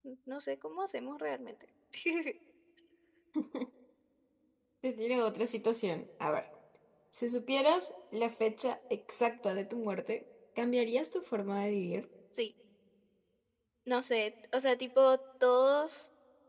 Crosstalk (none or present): none